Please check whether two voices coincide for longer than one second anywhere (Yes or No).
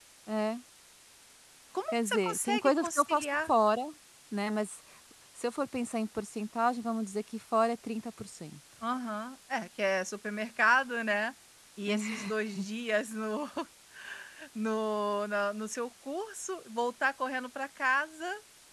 Yes